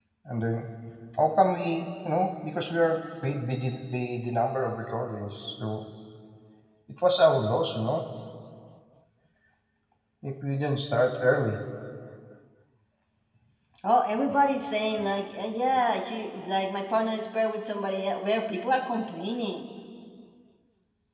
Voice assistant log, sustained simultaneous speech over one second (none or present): none